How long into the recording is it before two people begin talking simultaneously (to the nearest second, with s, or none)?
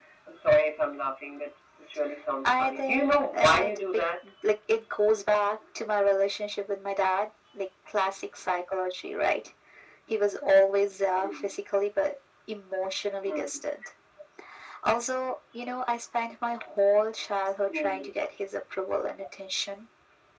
2 s